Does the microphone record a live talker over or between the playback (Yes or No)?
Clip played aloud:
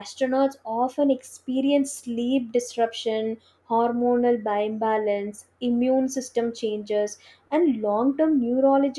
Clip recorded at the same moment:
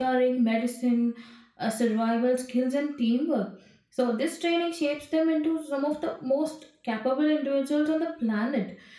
Yes